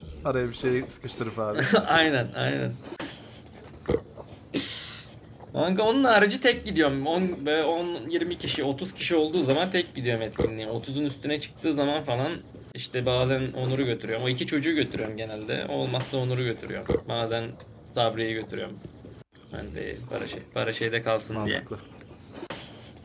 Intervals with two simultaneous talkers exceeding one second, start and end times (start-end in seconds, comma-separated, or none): none